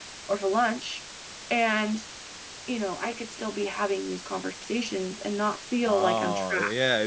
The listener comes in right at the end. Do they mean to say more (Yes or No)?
Yes